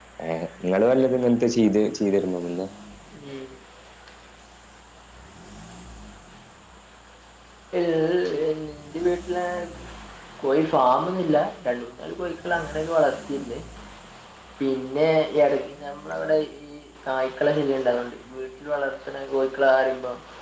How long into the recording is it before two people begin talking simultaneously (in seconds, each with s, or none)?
none